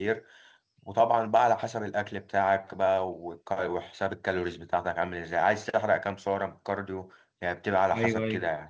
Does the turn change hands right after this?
Yes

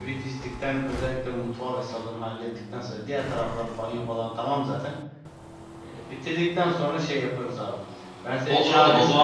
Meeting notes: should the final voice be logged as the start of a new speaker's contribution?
Yes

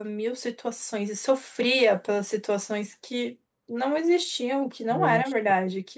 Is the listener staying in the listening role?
Yes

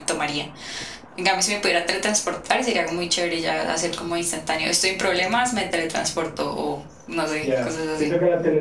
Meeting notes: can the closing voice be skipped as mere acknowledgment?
No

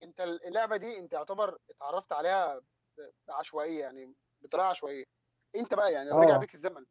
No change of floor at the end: Yes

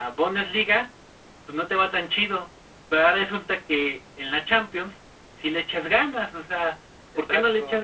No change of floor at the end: Yes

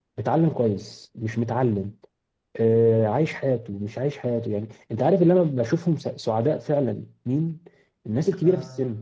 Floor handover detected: No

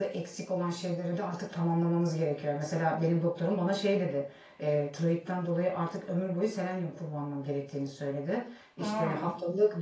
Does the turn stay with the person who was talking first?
Yes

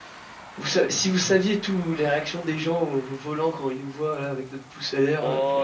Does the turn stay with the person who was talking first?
No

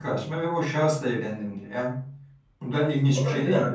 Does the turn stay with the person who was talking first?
No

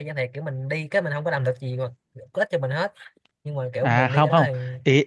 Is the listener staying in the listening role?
No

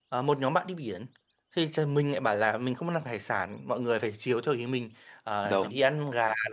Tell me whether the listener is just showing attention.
Yes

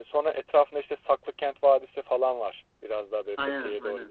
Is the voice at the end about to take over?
No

